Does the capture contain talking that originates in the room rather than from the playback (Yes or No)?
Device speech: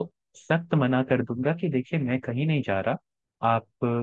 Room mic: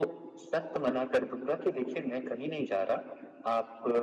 No